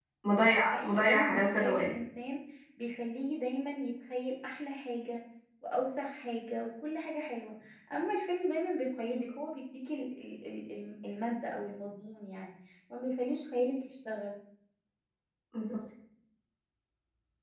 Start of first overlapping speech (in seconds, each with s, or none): 0.6 s